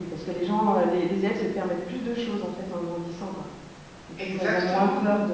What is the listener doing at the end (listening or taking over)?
listening